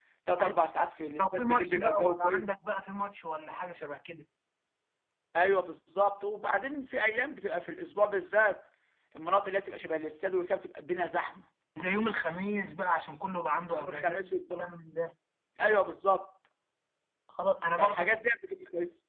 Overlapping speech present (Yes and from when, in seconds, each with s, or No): Yes, from 1.2 s